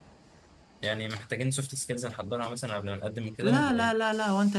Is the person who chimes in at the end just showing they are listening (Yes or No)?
No